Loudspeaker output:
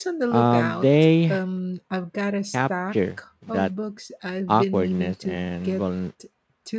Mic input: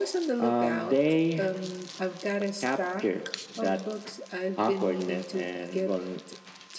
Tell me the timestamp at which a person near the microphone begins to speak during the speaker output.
none

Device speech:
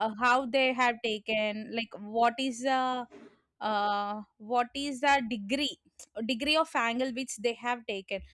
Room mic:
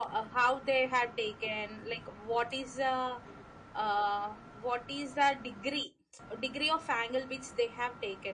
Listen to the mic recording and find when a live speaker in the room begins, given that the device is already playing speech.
none

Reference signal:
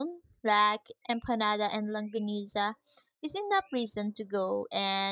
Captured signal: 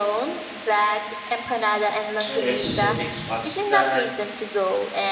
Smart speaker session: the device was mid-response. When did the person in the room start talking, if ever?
2.3 s

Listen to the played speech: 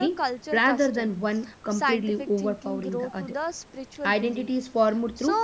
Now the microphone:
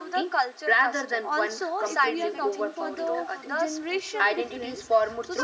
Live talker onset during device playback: 1.2 s

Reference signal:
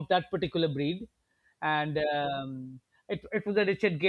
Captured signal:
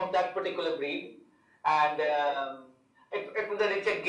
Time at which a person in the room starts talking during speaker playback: none

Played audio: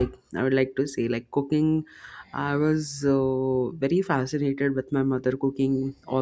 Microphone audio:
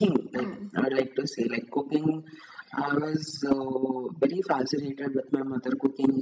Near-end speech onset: 0.4 s

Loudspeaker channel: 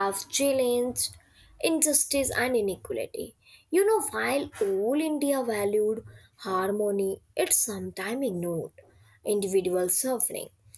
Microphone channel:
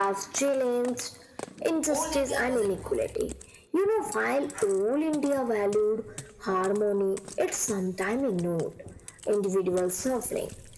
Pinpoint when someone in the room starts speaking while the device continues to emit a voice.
1.8 s

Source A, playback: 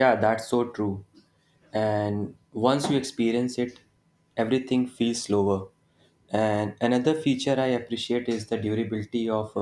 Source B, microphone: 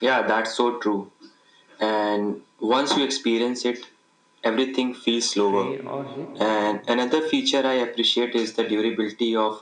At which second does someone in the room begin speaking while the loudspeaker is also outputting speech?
5.3 s

